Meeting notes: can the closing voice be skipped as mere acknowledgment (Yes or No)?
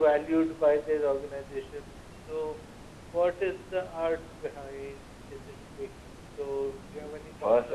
No